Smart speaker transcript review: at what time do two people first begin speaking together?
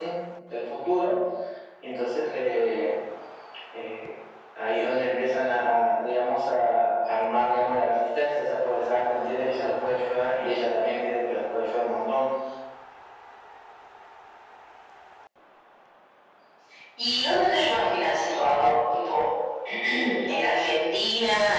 none

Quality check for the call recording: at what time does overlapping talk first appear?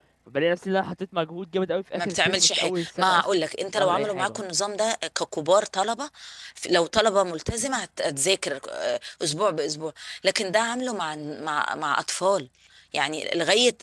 2 s

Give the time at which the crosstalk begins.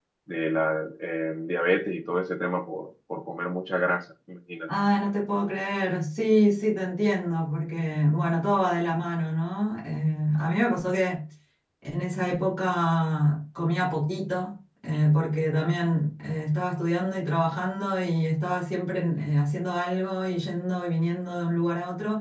none

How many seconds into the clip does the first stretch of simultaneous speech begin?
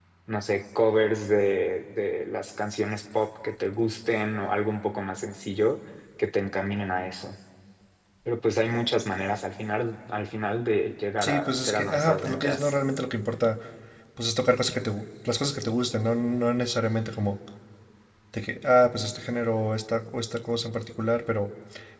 11 s

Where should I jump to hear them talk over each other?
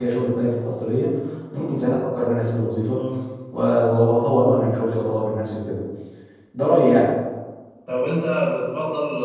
none

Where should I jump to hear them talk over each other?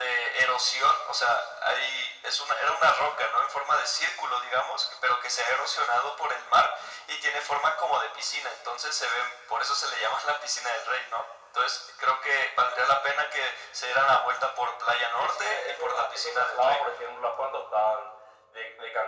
15 s

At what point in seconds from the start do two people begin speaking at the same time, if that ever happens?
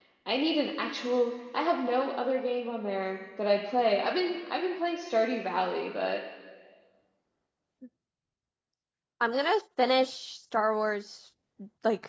none

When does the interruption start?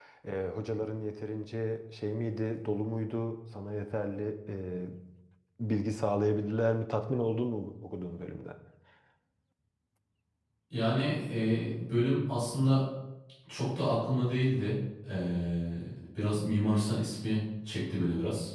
none

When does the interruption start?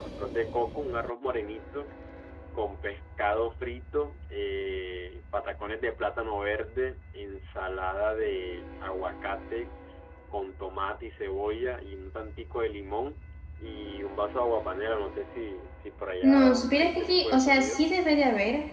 16 s

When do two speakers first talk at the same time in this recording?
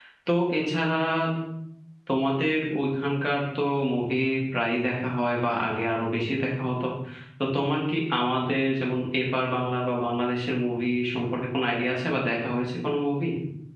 none

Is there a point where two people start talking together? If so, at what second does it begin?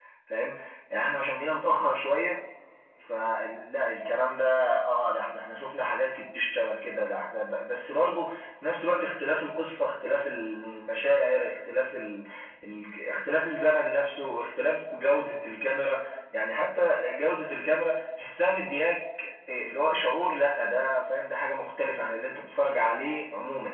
none

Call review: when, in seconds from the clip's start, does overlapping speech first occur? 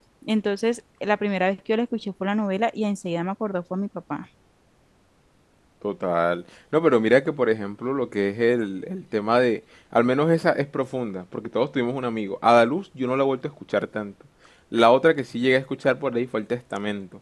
none

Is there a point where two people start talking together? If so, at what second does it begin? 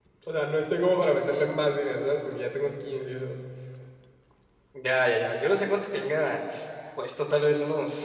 none

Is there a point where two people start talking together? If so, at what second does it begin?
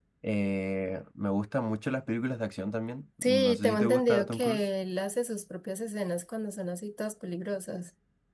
3 s

